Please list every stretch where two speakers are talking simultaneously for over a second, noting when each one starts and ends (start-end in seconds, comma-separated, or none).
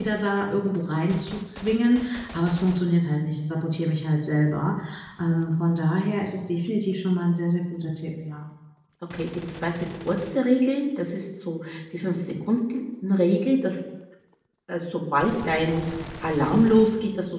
none